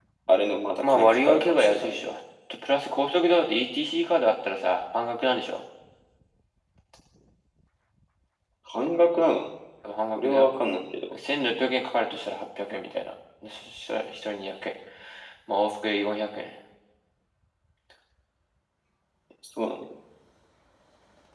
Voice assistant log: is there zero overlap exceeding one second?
No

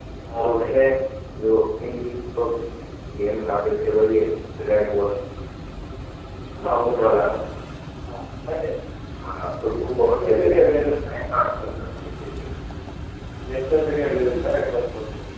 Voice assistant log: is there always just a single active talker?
No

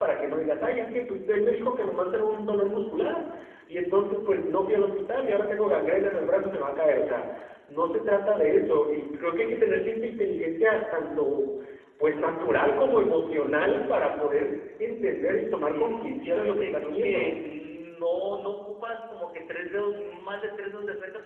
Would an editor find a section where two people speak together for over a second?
Yes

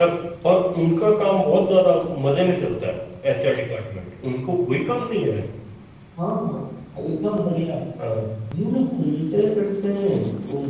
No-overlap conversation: Yes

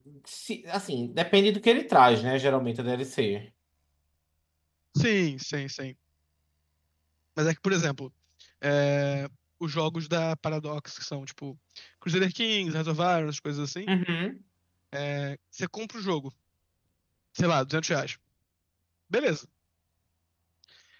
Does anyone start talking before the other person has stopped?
No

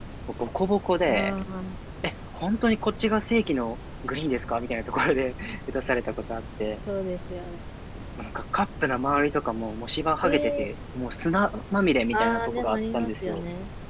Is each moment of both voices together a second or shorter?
No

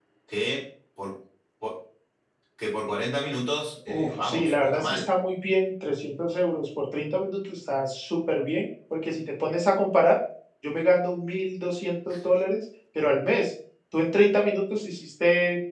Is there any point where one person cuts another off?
Yes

